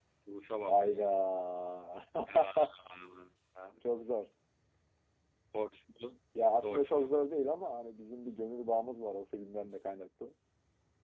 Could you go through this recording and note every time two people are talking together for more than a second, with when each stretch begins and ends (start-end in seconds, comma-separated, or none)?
none